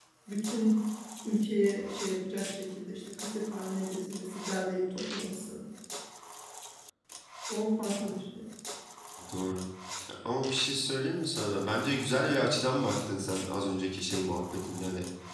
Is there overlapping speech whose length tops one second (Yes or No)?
No